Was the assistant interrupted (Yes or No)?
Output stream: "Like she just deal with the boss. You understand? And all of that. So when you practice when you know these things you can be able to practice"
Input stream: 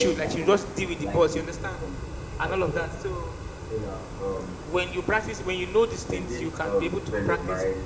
Yes